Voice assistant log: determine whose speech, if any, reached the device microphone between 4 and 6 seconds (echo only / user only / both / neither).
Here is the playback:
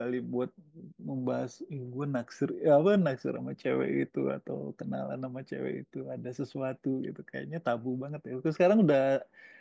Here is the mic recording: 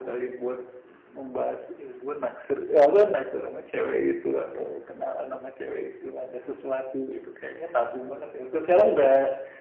echo only